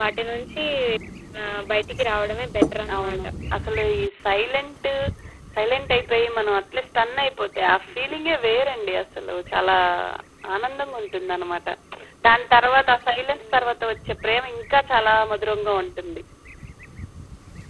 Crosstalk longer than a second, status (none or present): none